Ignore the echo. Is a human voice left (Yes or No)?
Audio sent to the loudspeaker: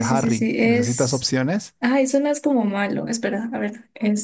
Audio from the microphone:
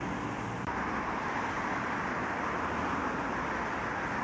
No